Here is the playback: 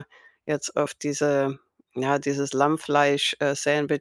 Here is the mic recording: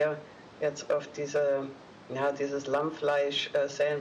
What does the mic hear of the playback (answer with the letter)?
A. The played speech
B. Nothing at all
A